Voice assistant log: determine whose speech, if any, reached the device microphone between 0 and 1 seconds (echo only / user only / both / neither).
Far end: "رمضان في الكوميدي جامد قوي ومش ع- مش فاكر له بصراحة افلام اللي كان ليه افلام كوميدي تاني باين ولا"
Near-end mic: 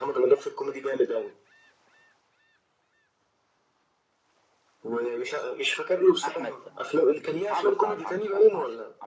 echo only